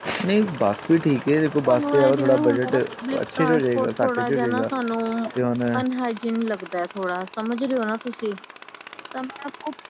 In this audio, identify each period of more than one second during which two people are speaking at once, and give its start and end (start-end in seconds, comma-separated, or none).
1.5-2.8, 3.2-4.7